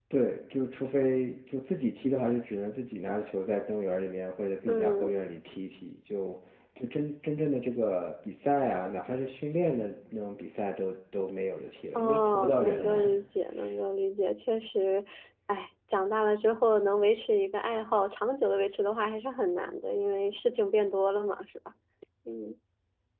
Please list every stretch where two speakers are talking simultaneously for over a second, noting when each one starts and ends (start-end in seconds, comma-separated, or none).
11.9-13.2